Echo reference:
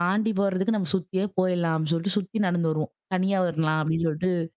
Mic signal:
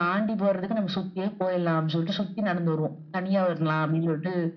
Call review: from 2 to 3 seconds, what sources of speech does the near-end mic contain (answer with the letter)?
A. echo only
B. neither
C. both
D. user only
A